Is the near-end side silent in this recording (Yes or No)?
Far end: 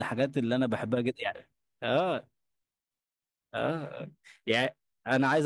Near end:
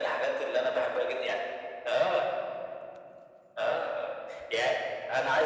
Yes